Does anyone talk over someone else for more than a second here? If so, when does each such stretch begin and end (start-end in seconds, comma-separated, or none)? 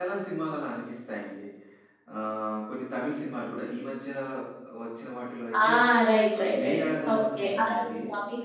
6.4-7.9